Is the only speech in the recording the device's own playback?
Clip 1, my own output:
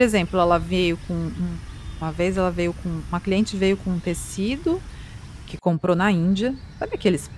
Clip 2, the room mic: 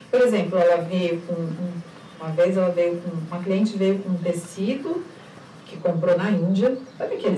Yes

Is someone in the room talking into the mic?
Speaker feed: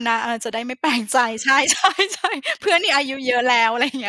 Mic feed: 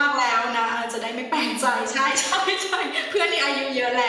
No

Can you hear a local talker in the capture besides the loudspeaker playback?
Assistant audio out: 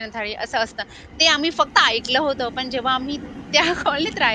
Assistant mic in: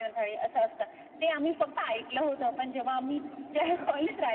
No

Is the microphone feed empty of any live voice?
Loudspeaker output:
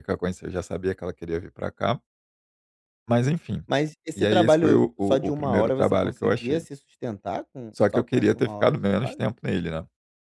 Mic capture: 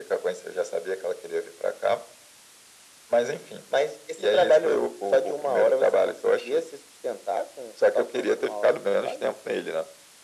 Yes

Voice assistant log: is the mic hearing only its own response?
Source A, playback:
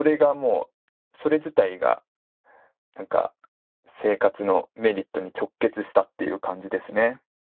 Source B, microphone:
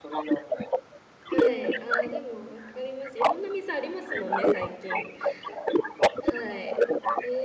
No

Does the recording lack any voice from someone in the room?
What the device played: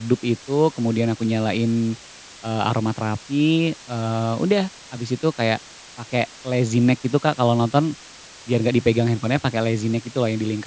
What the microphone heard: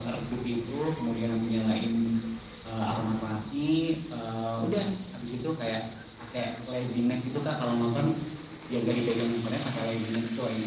Yes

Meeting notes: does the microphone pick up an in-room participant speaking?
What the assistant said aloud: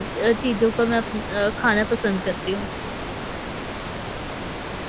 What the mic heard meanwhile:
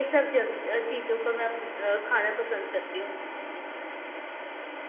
No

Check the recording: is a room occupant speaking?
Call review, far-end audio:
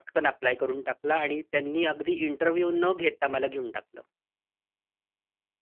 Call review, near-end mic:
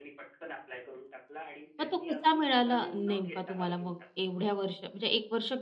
Yes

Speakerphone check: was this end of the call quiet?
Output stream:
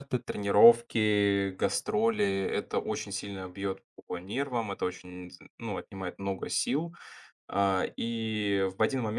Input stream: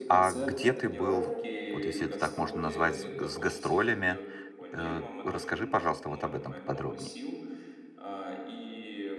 No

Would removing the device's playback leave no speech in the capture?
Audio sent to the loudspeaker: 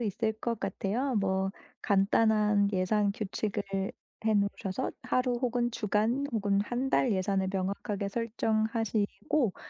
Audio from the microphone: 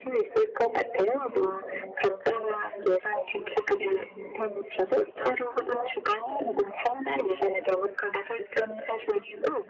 Yes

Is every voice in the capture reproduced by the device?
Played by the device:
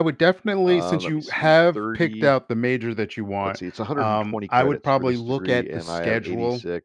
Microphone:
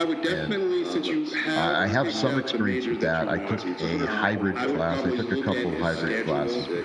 No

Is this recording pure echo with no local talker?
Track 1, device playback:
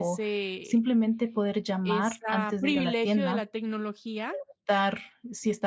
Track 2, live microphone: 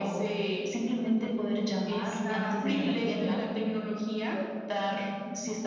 No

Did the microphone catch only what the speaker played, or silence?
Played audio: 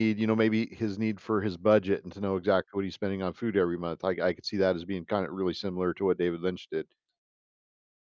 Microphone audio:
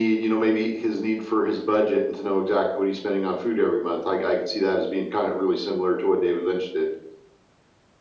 Yes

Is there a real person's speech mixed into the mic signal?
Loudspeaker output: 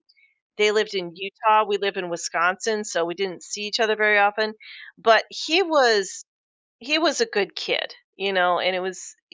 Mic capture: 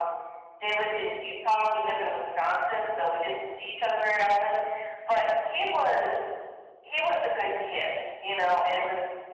No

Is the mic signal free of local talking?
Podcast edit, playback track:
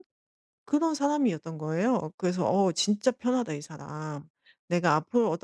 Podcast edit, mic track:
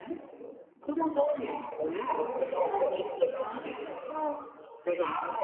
No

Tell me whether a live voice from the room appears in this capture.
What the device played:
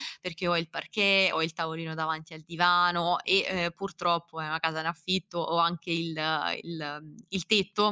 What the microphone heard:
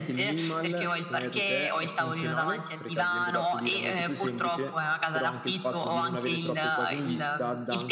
Yes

